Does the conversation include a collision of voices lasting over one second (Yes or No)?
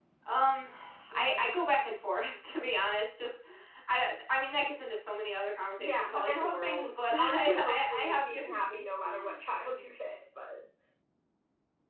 Yes